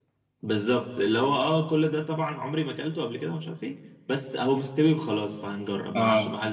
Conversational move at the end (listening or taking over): listening